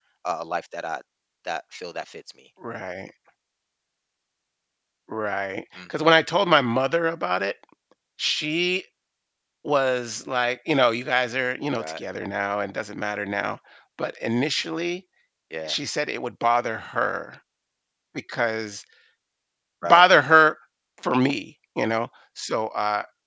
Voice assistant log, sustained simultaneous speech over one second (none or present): none